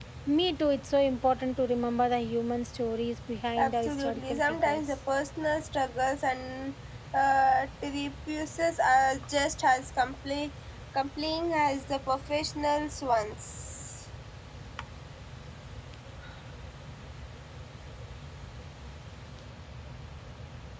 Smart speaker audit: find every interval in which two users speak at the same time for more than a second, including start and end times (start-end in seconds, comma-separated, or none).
3.6-5.0